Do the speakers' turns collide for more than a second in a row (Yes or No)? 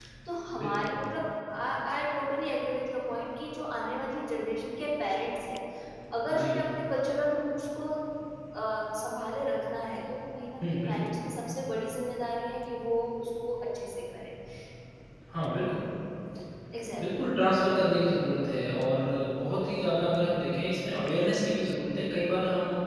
No